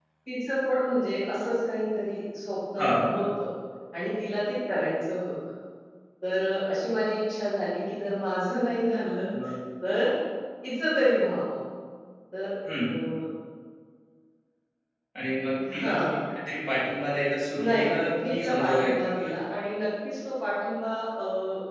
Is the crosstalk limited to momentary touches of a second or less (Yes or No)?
No